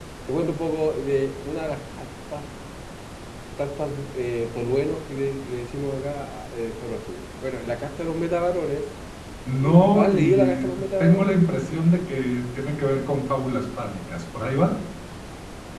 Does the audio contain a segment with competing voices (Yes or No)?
Yes